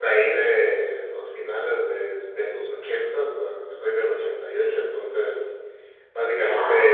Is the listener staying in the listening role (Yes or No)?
Yes